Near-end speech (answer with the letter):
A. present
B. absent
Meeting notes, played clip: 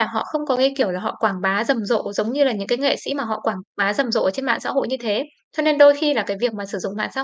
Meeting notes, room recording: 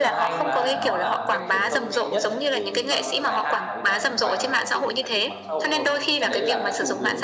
A